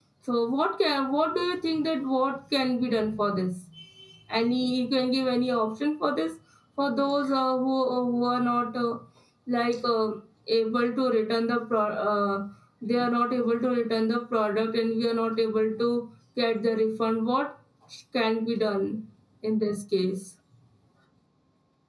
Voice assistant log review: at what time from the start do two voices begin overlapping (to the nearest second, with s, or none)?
none